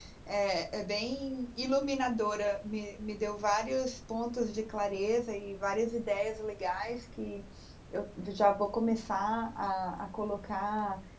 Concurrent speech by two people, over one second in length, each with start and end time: none

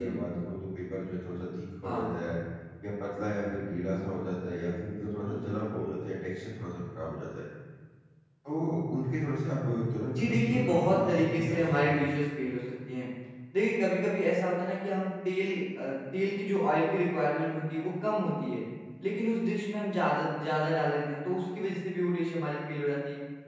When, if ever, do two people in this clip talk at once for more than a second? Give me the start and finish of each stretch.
10.2-12.0

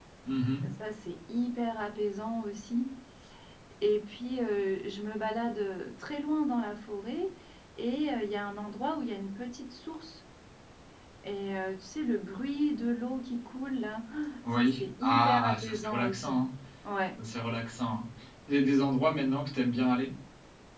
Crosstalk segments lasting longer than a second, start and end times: 14.6-16.3

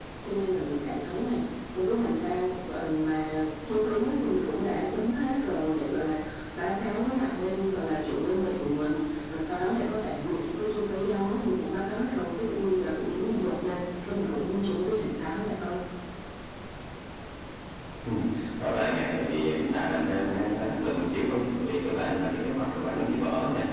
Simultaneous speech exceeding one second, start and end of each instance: none

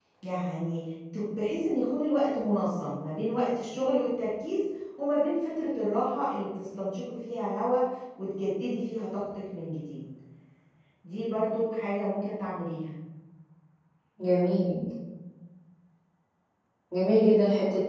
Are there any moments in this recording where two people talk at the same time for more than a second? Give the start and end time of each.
none

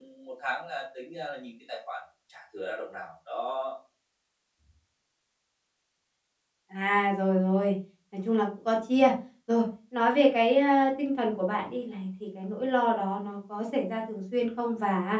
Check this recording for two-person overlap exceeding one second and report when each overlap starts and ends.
none

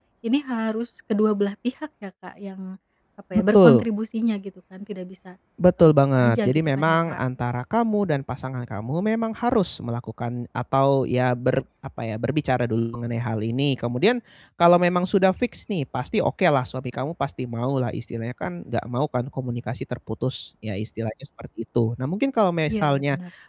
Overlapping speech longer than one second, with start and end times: 5.8-7.2

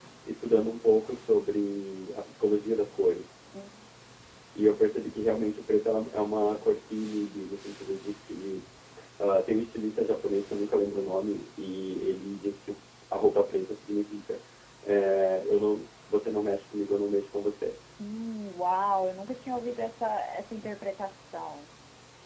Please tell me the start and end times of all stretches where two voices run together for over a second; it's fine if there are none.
none

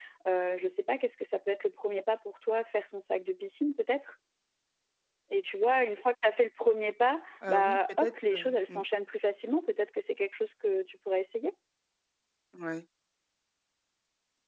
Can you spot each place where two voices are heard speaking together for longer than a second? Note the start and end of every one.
7.5-8.8

